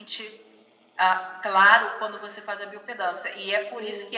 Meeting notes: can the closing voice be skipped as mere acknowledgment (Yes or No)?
Yes